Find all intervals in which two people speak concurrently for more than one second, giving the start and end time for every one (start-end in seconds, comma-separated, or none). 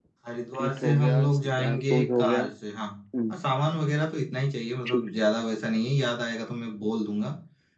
0.6-2.4